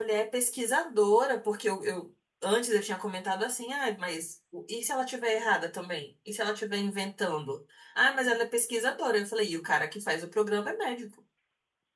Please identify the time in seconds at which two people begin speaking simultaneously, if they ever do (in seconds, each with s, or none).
none